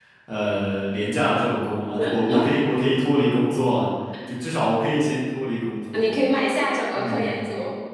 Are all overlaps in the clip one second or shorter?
Yes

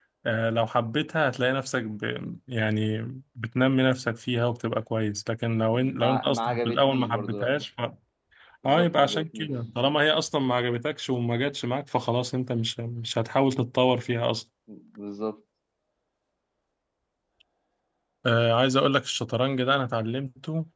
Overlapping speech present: Yes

